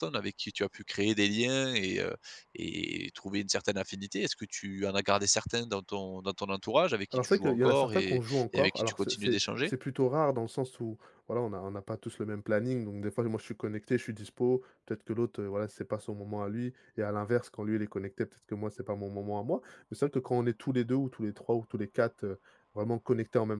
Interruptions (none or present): present